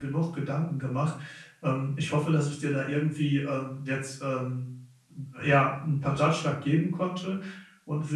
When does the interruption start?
none

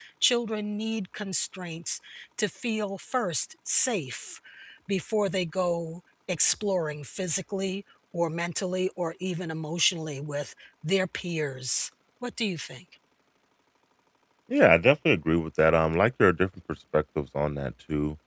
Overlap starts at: none

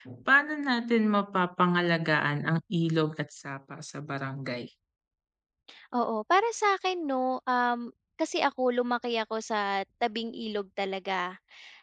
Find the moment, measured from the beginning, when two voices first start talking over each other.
none

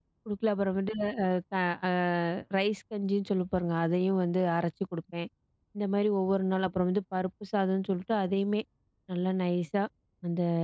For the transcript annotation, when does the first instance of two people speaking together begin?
none

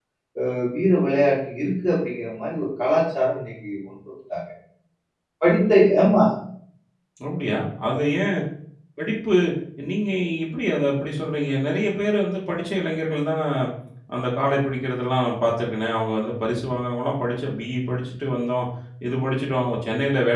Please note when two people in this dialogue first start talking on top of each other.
none

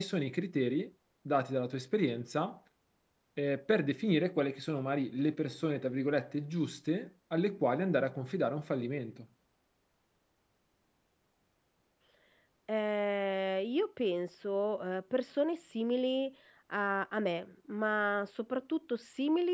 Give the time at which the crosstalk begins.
none

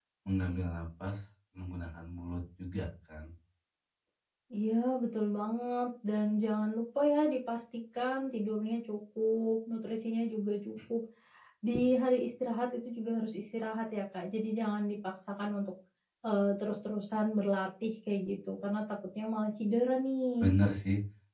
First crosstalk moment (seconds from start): none

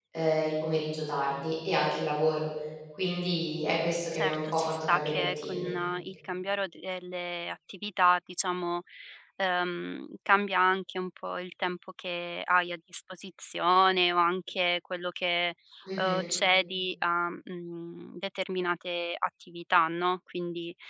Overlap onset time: 4.1 s

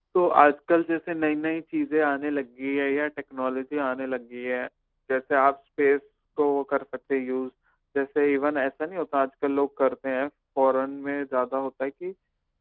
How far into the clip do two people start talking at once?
none

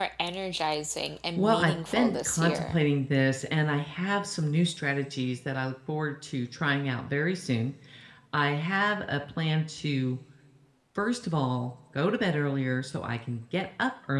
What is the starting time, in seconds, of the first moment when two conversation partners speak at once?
1.4 s

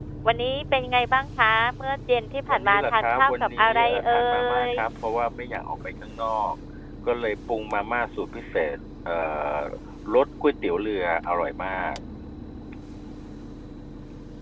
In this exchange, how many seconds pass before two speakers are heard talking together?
2.5 s

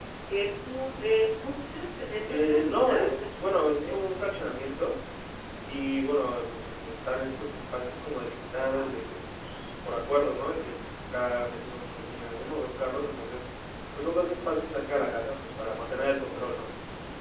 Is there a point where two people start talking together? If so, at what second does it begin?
2.3 s

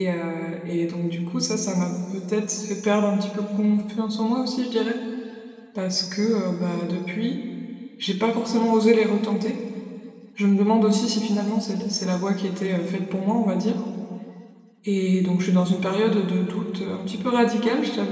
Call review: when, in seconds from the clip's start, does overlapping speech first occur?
none

